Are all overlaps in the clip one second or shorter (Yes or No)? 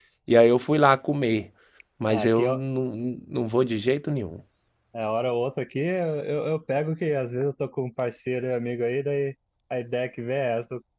Yes